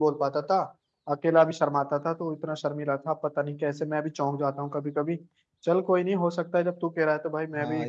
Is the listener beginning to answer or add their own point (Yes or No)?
Yes